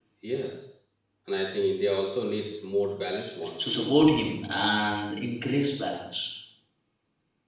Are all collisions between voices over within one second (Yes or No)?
Yes